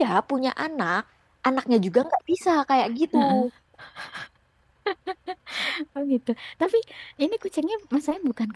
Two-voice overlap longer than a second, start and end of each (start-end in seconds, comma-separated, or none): none